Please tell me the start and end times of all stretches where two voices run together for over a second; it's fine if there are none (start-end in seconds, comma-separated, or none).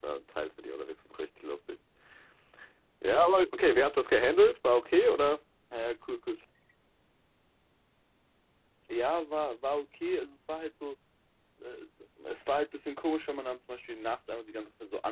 none